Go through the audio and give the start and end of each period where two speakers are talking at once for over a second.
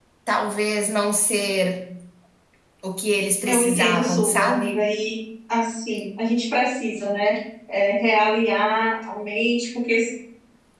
3.5-4.8

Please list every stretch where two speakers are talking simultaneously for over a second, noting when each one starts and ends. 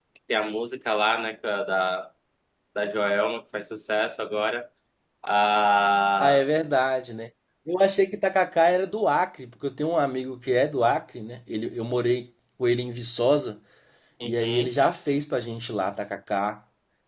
none

